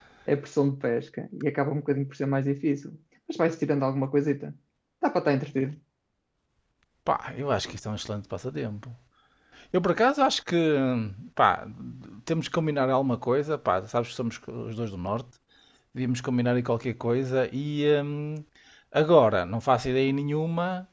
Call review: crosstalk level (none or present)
none